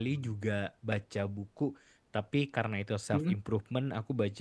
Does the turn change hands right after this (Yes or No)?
No